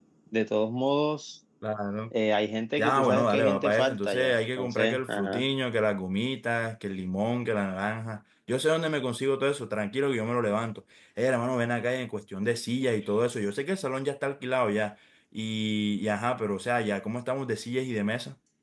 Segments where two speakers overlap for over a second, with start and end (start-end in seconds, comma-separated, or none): 2.8-5.5